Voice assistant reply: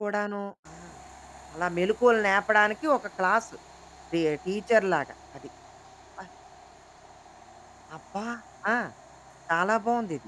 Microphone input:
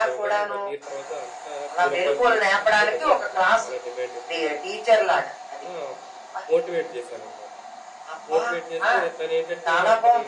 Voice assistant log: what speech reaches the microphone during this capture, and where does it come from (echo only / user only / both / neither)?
both